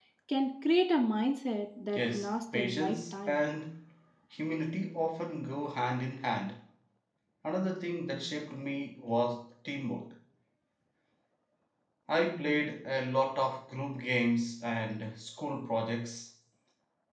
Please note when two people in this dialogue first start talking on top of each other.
1.9 s

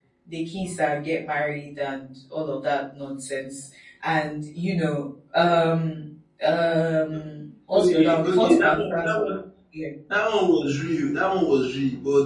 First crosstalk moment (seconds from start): 7.7 s

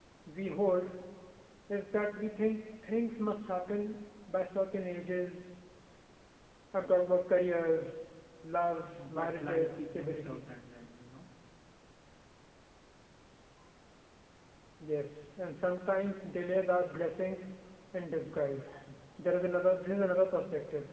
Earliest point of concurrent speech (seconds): 9.0 s

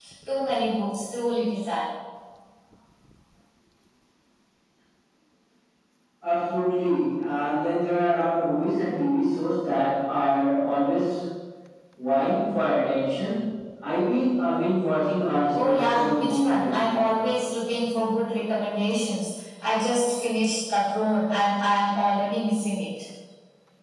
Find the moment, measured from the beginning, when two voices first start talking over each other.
15.5 s

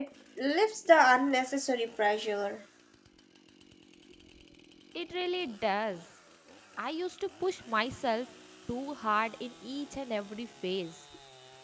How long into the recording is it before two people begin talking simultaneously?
none

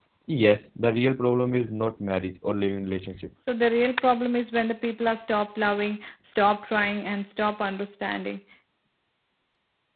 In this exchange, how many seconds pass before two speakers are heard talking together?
none

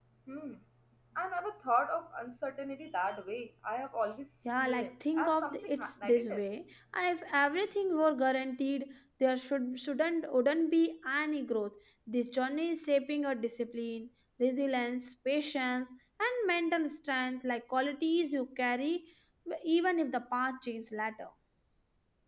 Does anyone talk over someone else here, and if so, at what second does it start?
4.5 s

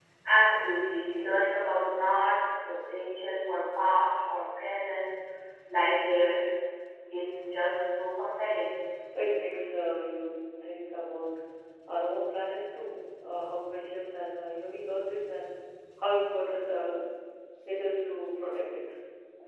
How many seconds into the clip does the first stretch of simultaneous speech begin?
none

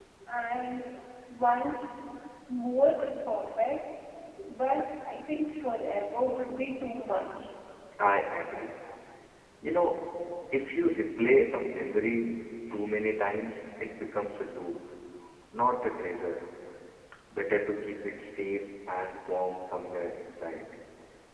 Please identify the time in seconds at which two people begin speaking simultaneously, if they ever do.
none

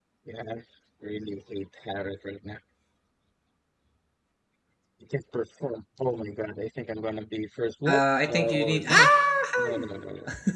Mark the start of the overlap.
7.9 s

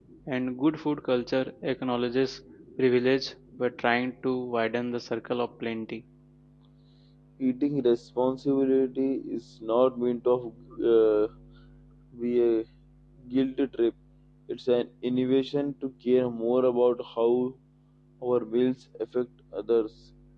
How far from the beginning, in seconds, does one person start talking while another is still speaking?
none

